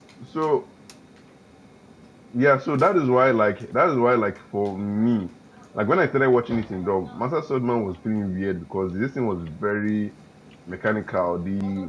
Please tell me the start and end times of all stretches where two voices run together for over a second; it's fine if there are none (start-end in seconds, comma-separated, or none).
none